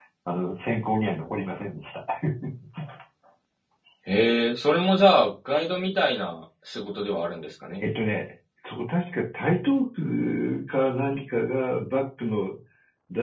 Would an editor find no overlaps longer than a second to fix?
Yes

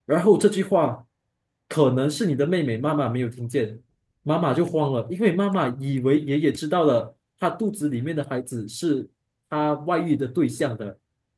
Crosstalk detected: No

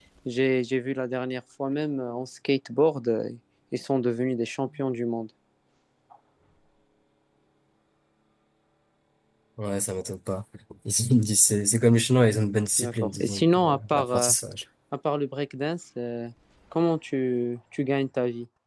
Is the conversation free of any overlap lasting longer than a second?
No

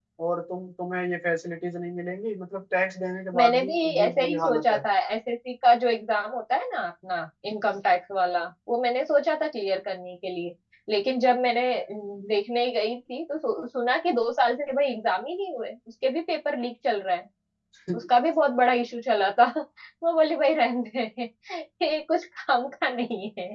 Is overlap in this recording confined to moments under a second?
No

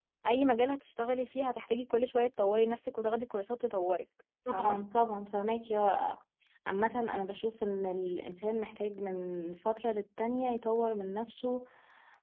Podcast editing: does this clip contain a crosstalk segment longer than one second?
No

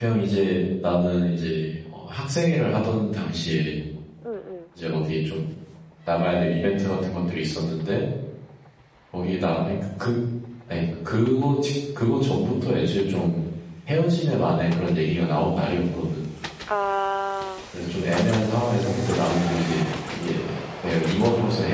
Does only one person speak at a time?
Yes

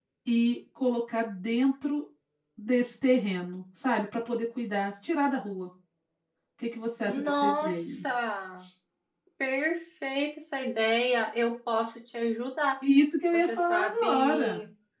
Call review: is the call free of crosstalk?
No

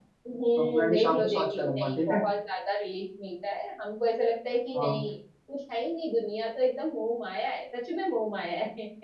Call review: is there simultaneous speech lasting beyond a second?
Yes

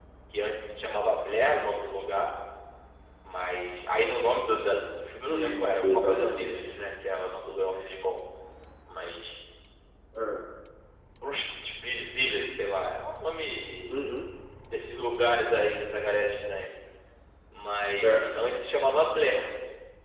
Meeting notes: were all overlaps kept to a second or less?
No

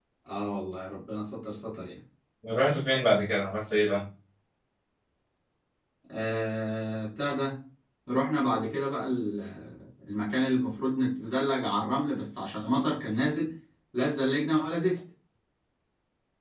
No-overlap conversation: Yes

